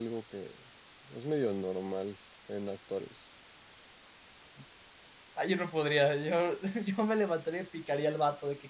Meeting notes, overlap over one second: none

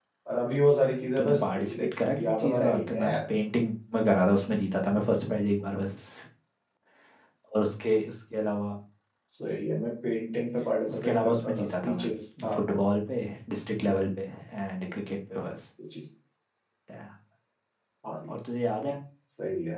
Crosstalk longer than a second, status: present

